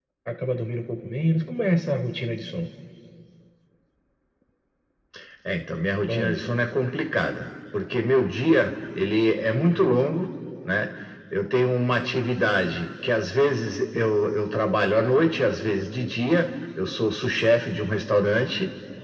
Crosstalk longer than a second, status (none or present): none